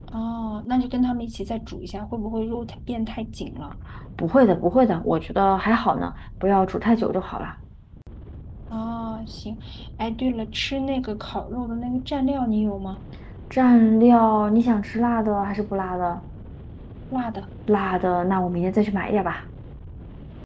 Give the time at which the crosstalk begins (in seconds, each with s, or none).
none